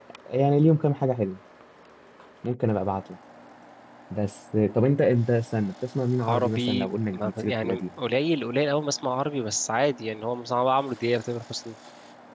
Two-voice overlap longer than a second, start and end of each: 6.2-7.8

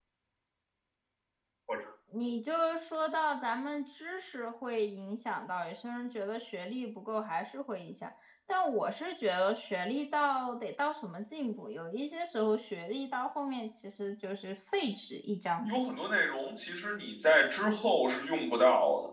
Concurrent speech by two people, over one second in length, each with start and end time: none

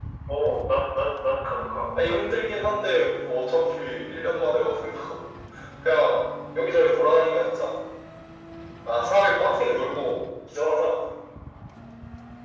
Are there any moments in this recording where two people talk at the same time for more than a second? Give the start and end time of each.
none

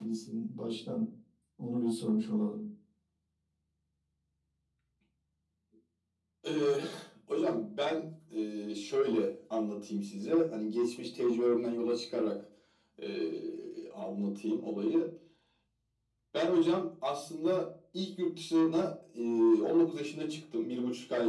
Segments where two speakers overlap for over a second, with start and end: none

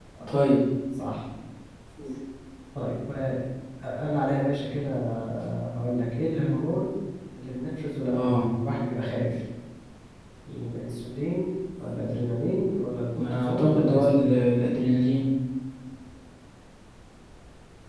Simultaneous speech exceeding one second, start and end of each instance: 13.1-14.4

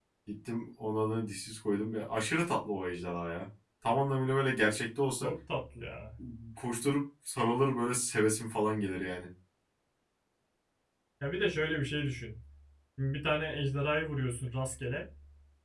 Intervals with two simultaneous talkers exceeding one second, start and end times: none

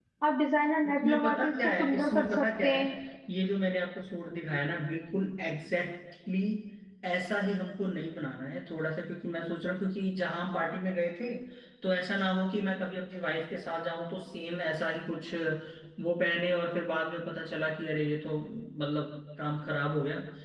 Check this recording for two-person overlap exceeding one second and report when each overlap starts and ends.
0.8-2.9

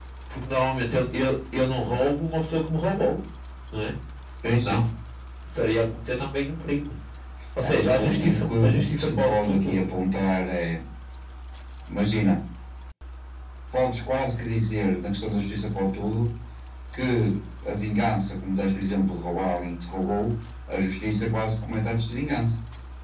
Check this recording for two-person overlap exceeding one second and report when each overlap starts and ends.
7.7-9.8

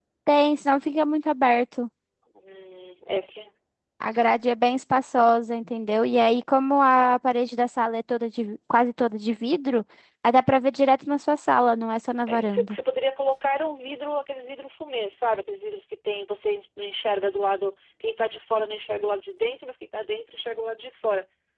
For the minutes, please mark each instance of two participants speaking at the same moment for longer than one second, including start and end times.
none

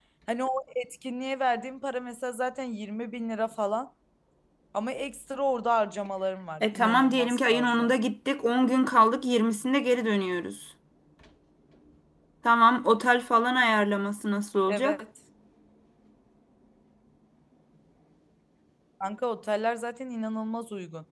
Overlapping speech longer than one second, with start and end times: 6.6-7.9

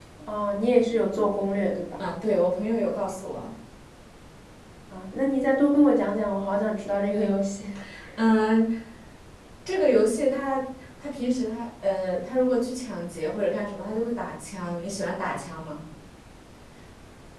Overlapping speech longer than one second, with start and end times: none

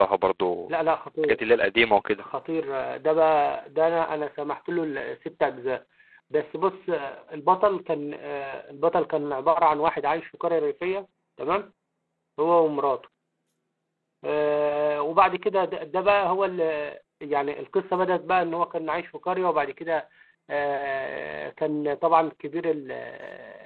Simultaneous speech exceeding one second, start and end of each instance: none

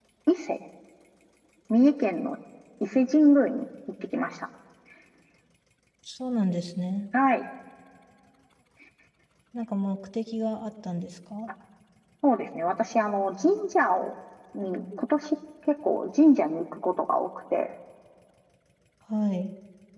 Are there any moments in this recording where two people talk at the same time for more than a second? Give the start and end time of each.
none

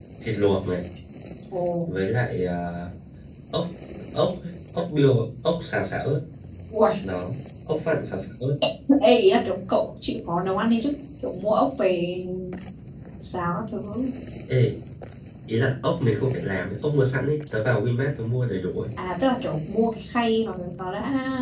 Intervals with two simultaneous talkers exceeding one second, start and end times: none

